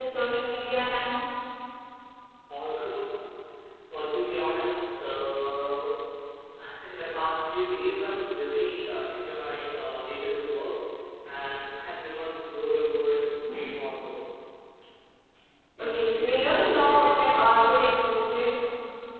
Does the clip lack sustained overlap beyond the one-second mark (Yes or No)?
No